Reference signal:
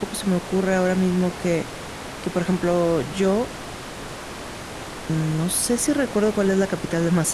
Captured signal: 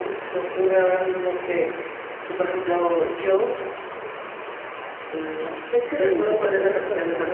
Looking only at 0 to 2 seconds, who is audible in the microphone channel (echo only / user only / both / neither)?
echo only